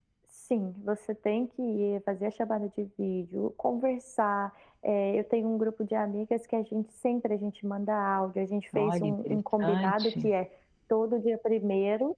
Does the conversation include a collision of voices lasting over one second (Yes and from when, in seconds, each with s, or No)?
Yes, from 8.7 s